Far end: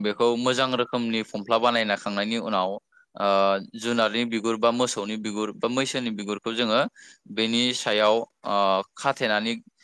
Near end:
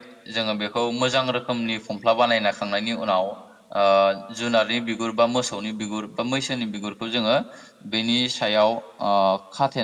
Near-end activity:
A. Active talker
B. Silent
B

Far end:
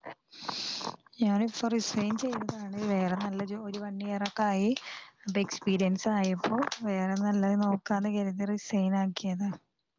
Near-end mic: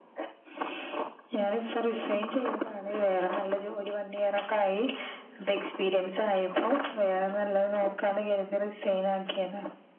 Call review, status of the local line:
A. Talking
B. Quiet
B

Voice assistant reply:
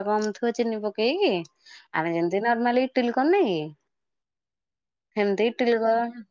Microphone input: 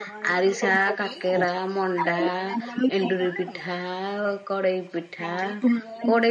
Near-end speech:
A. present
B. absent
A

